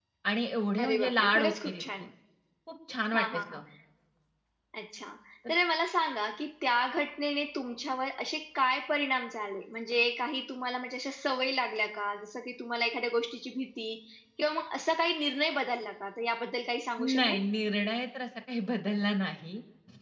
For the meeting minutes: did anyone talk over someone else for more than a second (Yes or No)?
Yes